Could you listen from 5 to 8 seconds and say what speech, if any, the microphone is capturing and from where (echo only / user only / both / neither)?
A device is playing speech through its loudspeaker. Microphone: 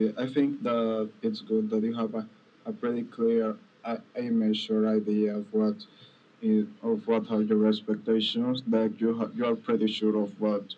echo only